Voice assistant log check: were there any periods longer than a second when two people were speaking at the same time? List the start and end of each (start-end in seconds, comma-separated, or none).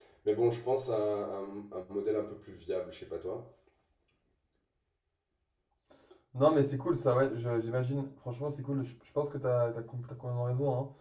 none